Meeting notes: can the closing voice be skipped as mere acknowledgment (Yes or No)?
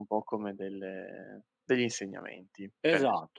No